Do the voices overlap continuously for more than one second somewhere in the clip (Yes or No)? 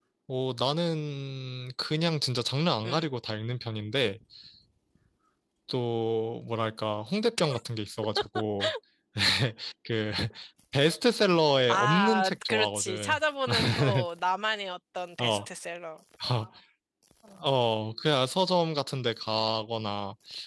Yes